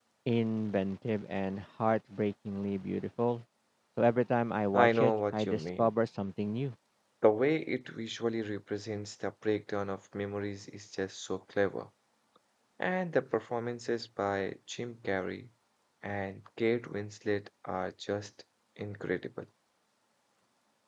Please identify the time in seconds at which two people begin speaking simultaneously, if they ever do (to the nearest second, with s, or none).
5 s